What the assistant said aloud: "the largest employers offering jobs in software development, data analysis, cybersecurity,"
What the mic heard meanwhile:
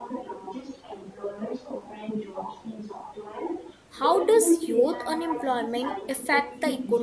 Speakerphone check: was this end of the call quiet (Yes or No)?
No